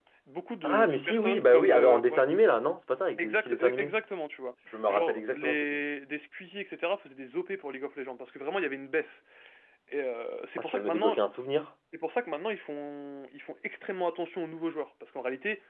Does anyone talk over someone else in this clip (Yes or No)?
Yes